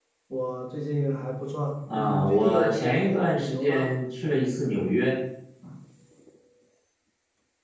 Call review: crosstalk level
present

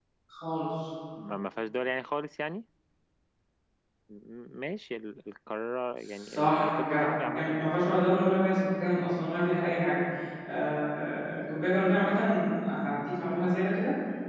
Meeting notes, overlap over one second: present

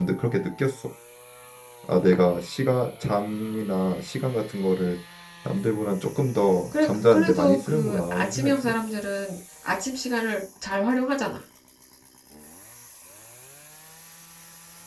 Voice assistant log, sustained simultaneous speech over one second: present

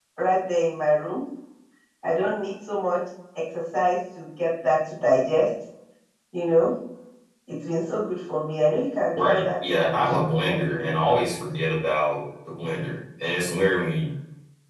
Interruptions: present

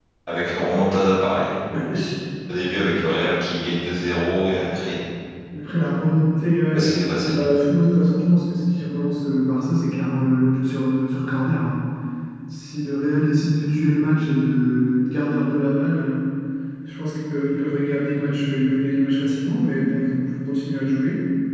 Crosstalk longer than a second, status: none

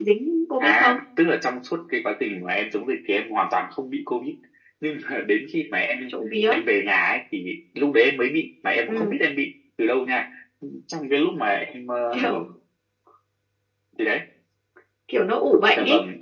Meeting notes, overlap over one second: none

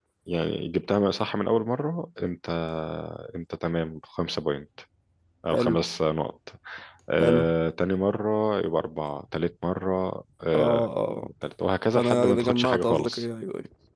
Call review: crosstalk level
present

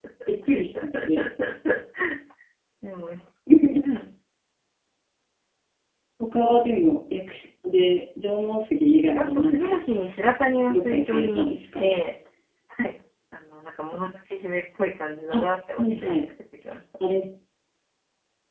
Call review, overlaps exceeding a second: present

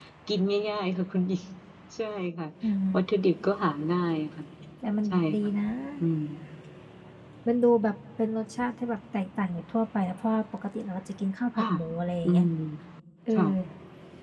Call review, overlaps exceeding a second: none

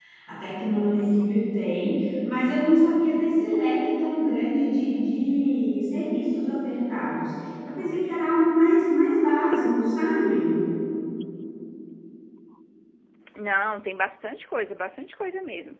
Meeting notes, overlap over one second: none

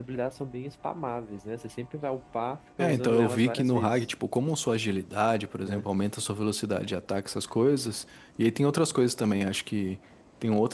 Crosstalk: present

